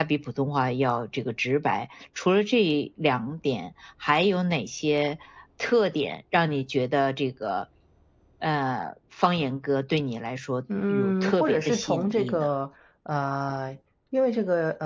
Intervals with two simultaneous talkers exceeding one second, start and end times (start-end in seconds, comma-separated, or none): 10.9-12.5